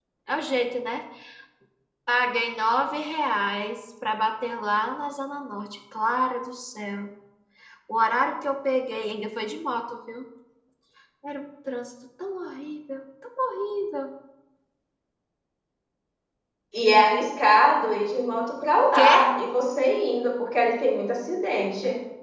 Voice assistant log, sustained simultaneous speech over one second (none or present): none